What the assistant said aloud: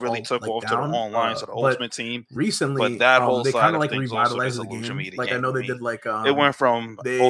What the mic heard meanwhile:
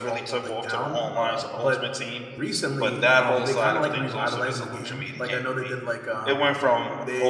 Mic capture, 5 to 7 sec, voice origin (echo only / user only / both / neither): echo only